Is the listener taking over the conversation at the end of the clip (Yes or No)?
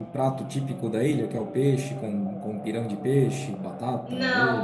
Yes